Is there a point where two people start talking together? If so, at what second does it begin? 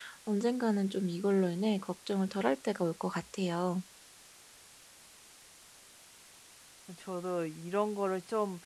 none

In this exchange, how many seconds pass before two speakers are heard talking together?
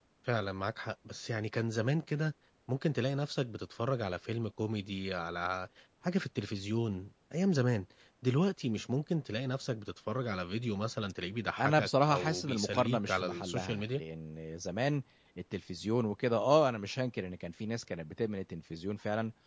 12 s

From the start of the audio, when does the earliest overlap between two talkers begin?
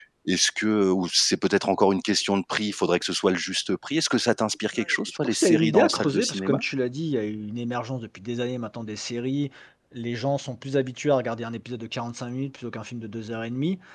5 s

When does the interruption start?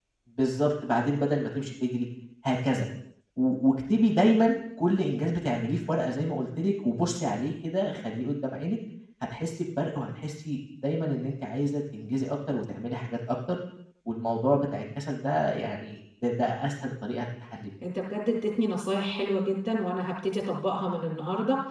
none

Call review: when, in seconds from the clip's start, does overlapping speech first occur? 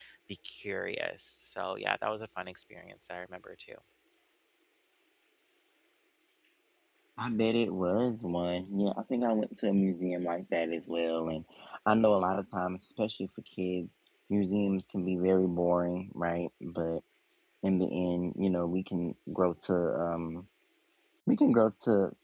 none

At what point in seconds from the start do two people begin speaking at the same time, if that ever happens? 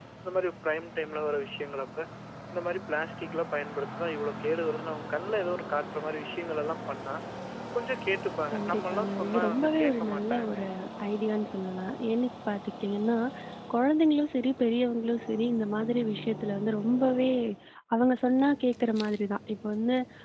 9 s

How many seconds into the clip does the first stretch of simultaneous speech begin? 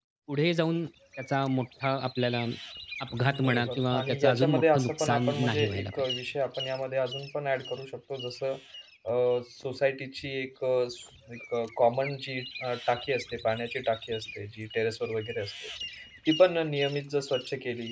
3 s

